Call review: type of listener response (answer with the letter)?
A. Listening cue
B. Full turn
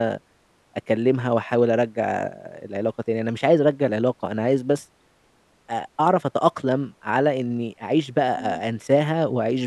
A